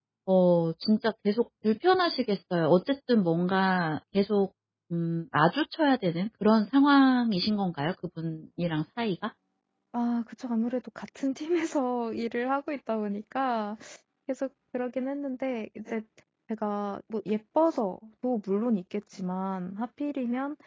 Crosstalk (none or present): none